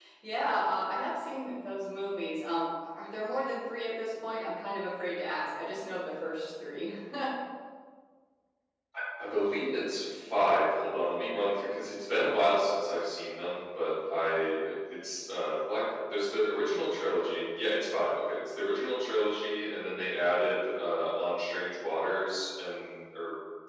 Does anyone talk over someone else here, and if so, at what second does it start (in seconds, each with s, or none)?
none